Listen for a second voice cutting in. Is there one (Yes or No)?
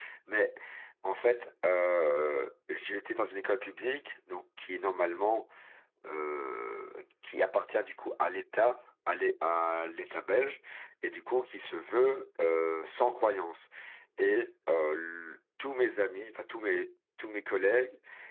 No